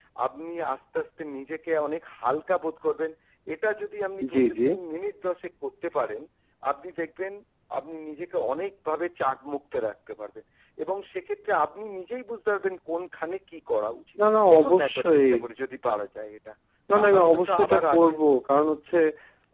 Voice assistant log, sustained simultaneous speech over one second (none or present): present